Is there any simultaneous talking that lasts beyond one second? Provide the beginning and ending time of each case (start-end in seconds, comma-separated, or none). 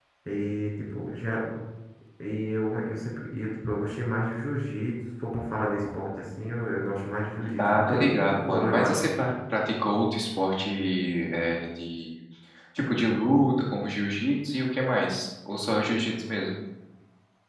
7.4-9.1